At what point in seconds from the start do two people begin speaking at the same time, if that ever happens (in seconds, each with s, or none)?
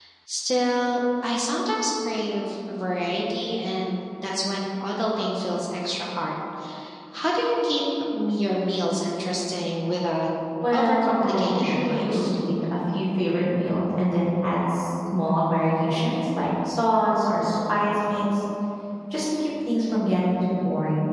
10.7 s